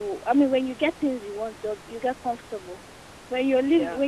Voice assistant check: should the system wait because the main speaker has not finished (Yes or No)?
Yes